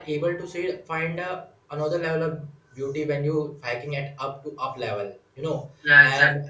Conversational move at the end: listening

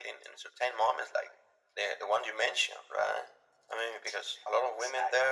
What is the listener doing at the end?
listening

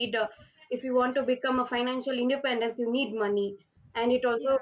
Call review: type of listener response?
listening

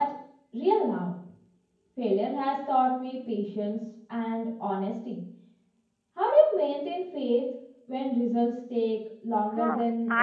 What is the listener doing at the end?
taking over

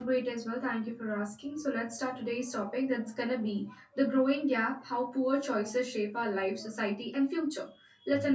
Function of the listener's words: listening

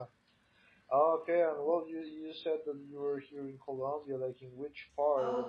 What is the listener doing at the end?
taking over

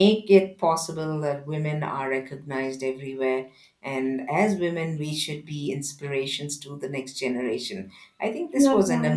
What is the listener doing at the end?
listening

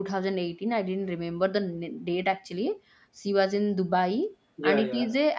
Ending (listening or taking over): listening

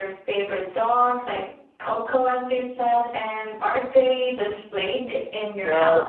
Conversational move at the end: taking over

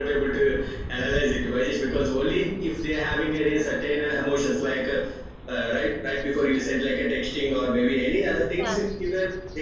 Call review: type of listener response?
listening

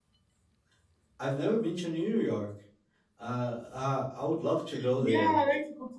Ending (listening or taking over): taking over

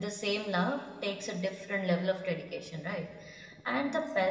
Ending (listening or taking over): listening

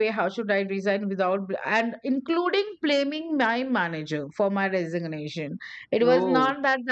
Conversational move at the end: listening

